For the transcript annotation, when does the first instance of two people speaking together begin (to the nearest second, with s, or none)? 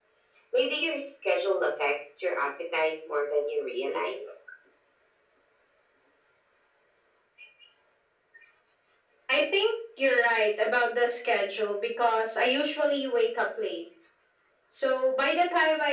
none